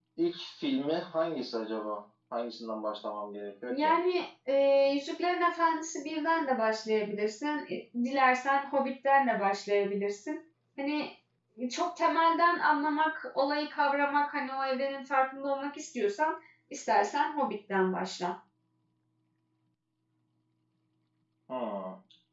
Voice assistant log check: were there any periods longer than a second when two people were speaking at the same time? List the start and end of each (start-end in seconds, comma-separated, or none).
none